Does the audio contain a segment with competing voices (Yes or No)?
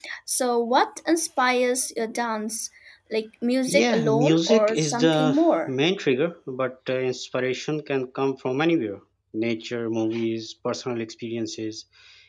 Yes